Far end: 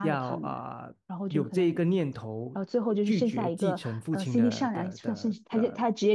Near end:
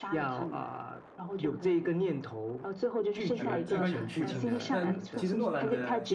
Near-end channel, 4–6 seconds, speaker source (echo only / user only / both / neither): both